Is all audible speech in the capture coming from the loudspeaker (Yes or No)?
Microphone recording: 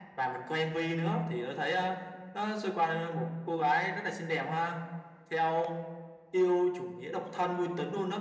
Yes